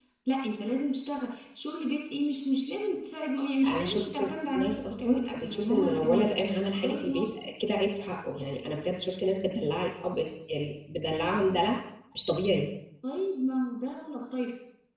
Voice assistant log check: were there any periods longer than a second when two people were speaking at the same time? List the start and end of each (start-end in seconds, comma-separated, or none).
3.6-7.2